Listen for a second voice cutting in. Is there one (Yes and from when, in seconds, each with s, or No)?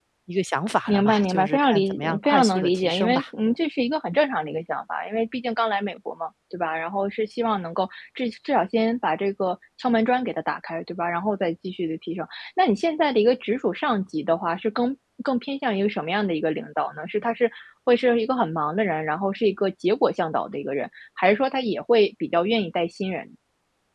Yes, from 0.9 s